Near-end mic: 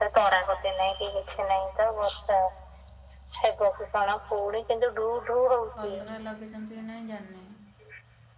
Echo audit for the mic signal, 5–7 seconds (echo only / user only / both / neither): both